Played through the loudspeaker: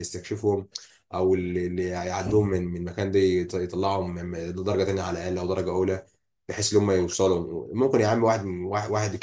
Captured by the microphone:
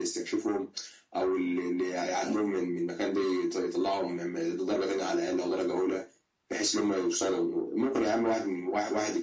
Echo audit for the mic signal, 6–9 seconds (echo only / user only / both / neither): echo only